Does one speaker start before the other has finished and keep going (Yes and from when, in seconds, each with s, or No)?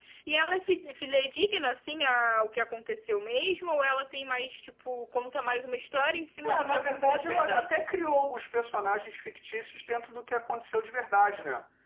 Yes, from 6.4 s